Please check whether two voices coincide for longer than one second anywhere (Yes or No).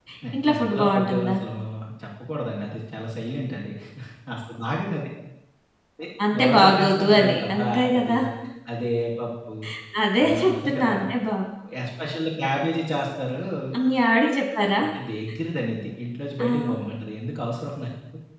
Yes